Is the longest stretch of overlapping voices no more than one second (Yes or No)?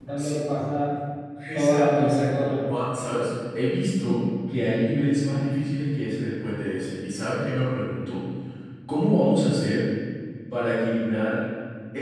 No